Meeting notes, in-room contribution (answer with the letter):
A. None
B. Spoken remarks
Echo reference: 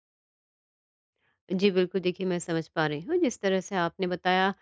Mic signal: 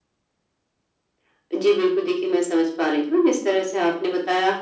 A